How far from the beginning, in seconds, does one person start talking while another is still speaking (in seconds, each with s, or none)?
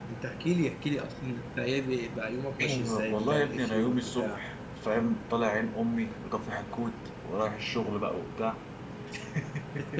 2.6 s